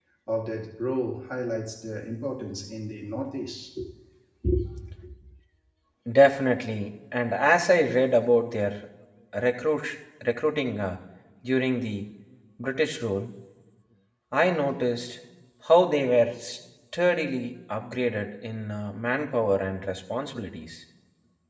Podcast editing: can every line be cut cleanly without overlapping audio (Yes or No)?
Yes